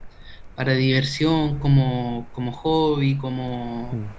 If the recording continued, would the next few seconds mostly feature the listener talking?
No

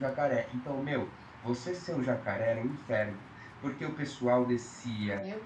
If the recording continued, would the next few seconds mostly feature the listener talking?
No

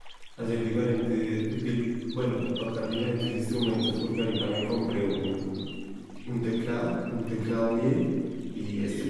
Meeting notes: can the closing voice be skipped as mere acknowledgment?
Yes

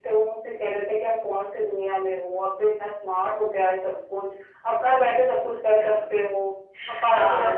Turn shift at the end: Yes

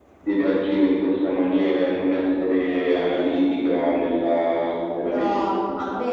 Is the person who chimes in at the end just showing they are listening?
No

